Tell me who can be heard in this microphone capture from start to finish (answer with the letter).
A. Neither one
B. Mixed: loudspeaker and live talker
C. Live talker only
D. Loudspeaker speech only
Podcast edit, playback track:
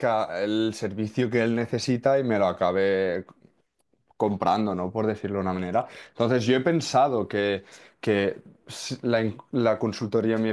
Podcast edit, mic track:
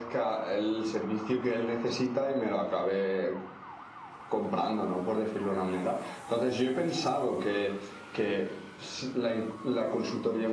D